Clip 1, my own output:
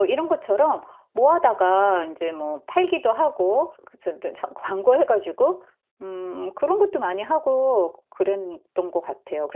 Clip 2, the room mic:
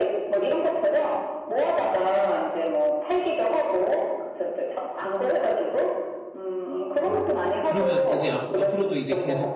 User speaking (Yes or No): Yes